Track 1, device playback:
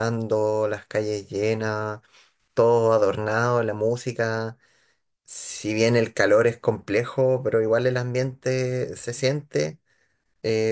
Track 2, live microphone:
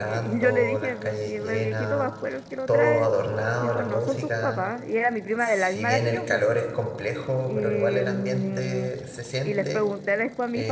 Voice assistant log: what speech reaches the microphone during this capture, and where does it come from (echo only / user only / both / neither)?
both